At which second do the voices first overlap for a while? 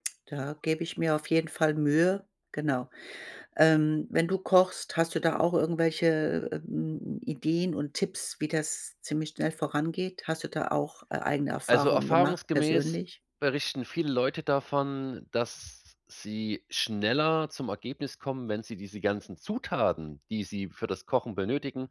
12 s

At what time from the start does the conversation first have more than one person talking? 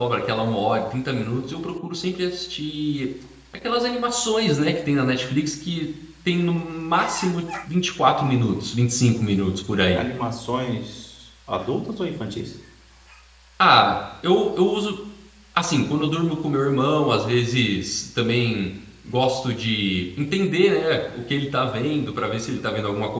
none

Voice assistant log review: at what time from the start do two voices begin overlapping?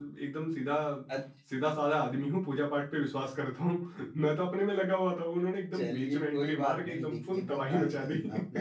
6 s

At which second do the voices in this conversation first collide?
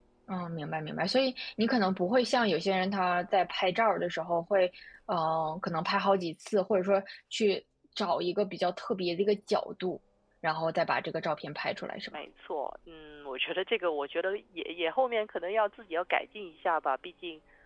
none

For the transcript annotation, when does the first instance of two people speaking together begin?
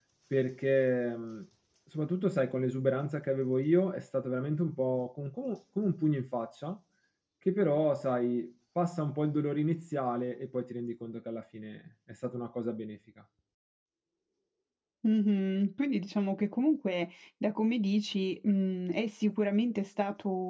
none

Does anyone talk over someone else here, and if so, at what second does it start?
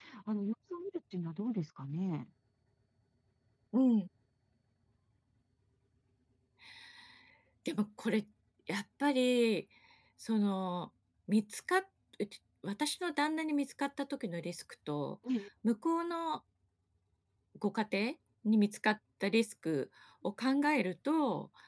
none

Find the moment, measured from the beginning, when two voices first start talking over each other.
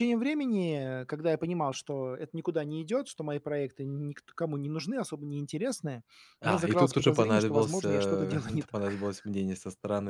6 s

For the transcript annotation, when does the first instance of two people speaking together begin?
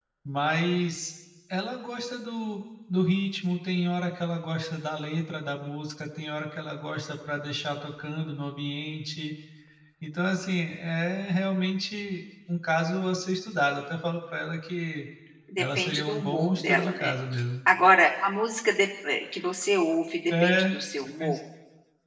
16 s

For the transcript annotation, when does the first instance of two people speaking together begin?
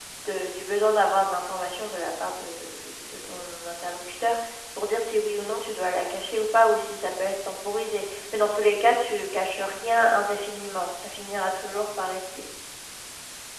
none

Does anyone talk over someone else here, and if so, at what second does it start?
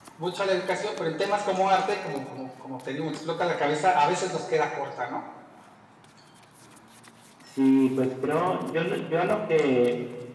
none

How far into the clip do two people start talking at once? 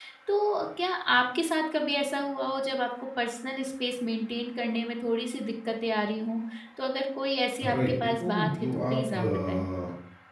8 s

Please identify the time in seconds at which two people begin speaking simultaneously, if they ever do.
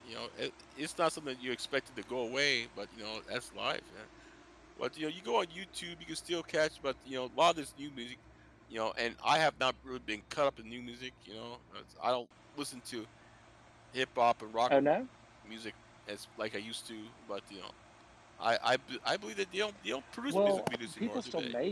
20 s

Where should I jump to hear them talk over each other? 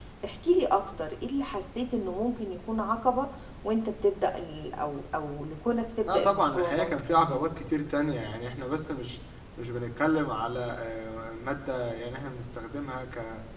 6 s

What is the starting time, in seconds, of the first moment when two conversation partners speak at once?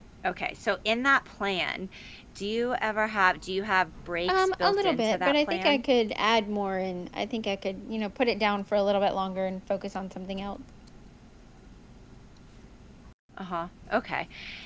4 s

